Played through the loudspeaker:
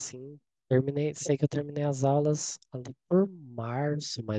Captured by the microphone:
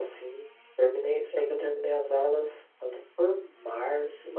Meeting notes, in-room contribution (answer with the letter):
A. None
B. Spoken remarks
A